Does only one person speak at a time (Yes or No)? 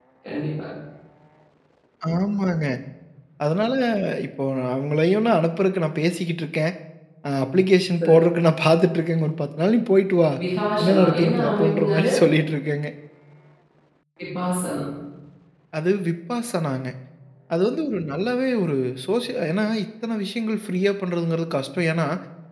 No